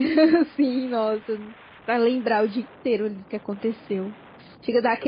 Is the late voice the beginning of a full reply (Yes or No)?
No